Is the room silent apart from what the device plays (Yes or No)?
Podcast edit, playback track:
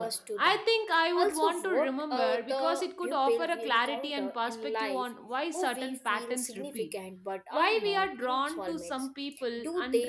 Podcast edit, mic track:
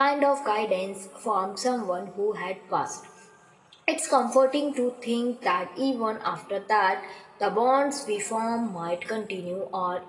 No